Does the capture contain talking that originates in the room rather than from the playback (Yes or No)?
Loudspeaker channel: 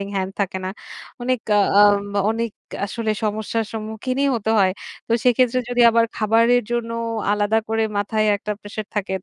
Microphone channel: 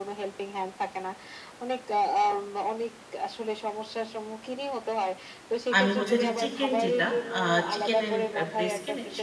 Yes